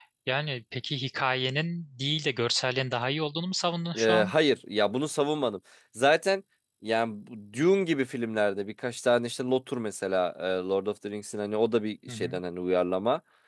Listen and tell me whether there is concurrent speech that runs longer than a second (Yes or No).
No